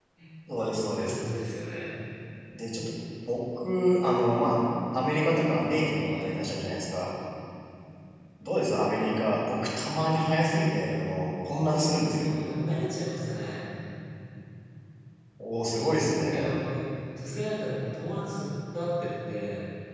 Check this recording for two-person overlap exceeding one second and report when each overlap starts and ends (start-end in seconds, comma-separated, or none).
none